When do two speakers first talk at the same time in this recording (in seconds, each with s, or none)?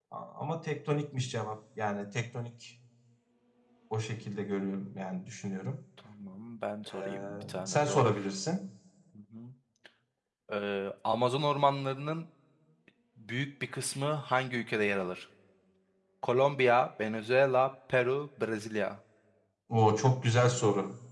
6.9 s